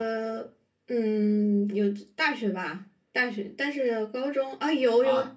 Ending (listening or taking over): taking over